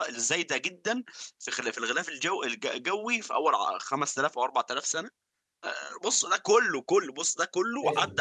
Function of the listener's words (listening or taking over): taking over